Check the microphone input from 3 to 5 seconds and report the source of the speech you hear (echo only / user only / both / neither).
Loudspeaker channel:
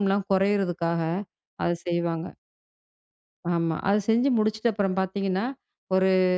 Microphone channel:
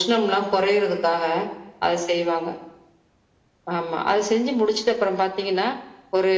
echo only